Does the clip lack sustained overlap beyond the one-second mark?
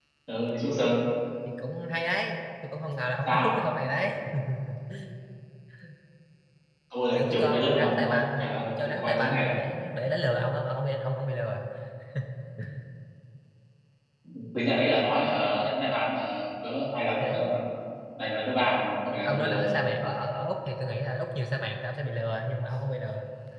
No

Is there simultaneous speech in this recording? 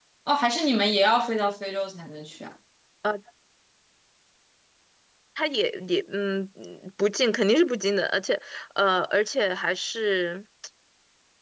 No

